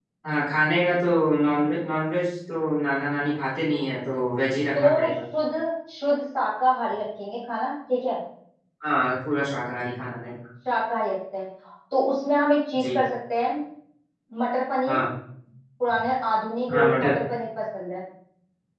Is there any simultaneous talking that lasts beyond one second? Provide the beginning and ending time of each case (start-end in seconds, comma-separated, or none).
none